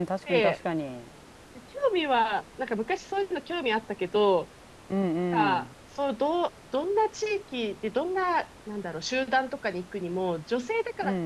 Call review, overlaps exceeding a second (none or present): none